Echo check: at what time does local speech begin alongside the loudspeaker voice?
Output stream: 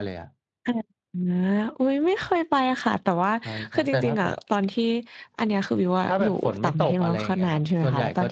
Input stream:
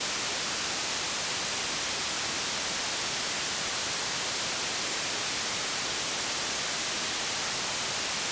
none

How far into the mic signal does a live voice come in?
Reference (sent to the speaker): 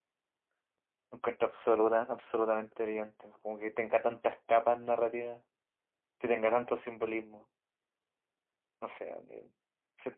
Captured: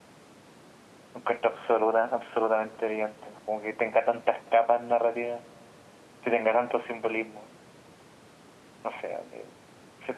none

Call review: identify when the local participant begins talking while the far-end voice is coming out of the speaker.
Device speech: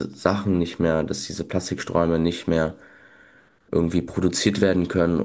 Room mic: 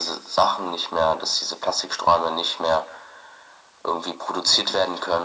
none

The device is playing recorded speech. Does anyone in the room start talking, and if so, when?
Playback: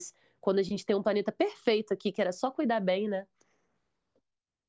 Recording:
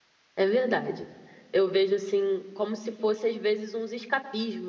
0.4 s

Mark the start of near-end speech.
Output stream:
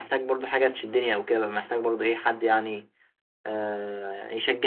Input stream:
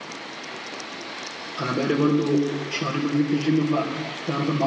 1.6 s

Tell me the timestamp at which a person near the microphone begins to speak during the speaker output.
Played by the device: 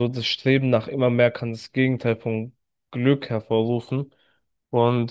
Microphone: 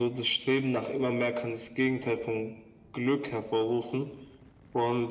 none

